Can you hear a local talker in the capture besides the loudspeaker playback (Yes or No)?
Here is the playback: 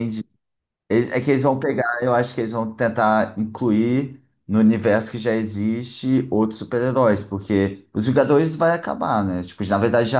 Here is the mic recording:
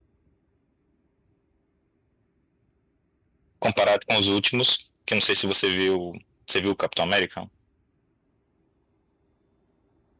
Yes